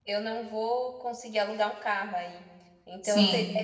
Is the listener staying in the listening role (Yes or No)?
Yes